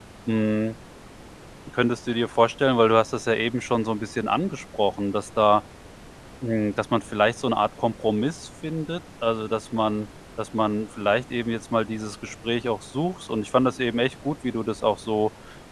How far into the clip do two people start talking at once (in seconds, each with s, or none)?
none